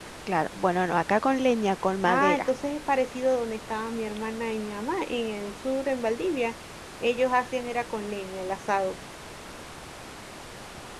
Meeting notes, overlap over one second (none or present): none